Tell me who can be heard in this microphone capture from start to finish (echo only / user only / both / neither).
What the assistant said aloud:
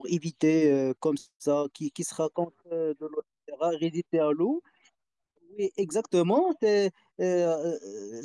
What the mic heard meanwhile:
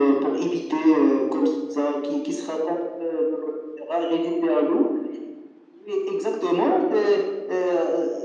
echo only